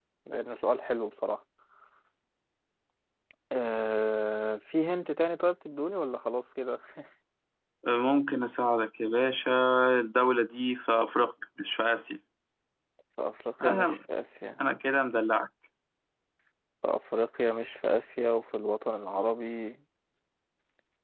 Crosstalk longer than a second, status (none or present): none